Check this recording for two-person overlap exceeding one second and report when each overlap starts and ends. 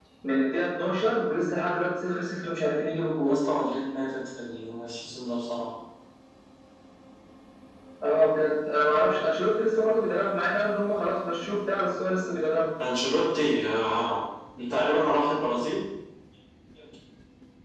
none

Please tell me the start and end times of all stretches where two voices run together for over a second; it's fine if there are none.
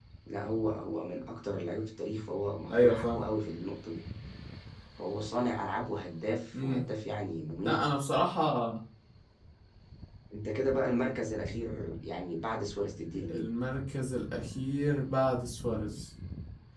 none

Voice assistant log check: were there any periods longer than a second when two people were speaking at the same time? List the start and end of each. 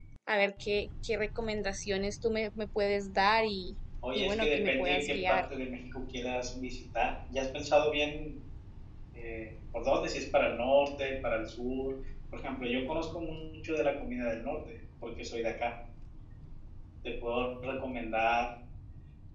4.2-5.4

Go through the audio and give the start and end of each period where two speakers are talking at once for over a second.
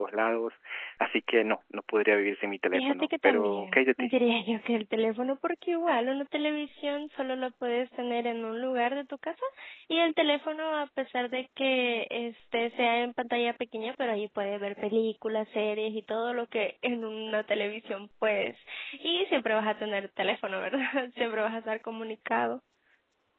2.7-4.1

